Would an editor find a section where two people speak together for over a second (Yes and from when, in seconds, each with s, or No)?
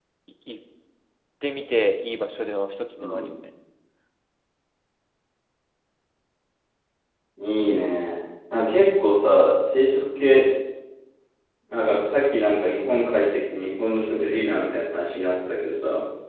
No